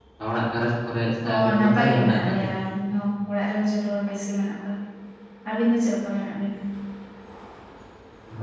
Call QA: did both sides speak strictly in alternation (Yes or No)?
No